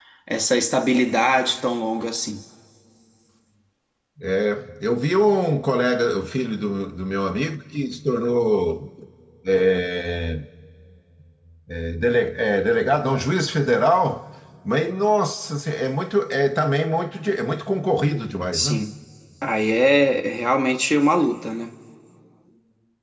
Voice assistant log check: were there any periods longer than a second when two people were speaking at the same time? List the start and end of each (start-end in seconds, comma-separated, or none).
none